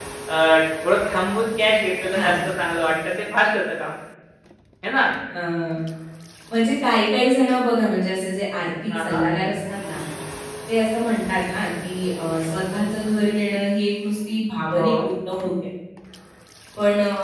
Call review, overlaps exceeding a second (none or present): none